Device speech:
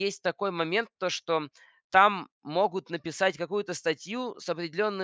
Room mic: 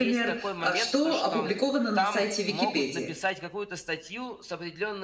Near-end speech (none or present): present